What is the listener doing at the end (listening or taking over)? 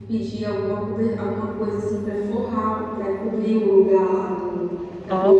taking over